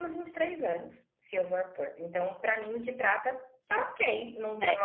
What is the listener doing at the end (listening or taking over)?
taking over